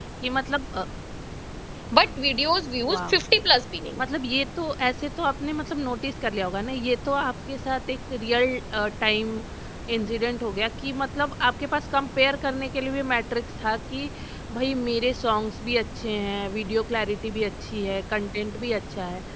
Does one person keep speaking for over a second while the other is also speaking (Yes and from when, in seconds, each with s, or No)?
No